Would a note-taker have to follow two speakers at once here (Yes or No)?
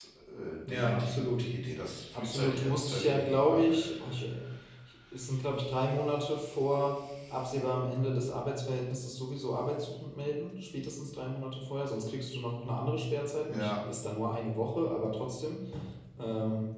Yes